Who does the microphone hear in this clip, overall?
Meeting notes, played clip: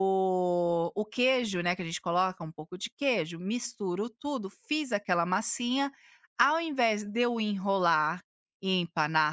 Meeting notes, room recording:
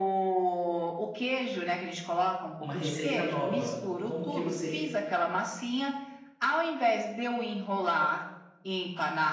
both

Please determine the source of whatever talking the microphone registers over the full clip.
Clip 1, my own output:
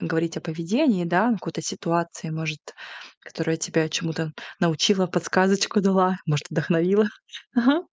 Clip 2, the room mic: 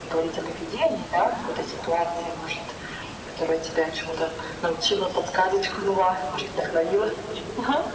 echo only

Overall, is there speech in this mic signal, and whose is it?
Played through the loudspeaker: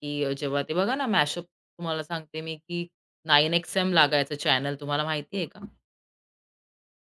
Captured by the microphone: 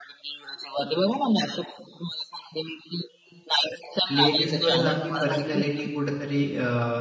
both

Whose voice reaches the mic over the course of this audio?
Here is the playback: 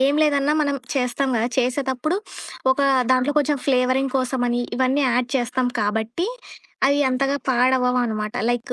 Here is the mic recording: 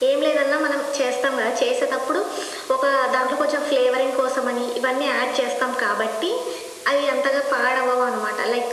echo only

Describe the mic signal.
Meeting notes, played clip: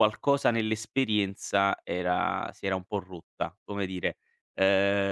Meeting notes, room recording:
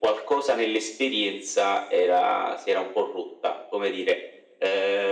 echo only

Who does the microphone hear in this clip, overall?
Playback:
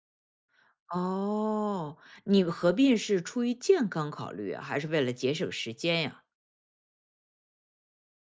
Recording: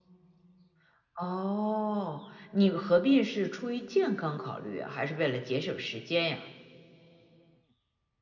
echo only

